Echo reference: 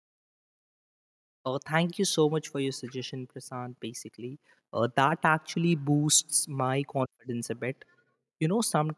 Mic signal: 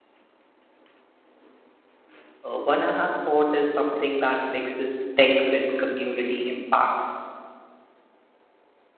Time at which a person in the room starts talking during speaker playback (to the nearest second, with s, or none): 2 s